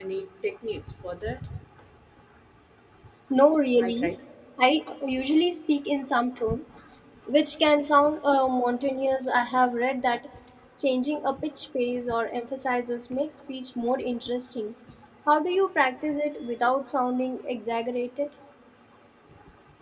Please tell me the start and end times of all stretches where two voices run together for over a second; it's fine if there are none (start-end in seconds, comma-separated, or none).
none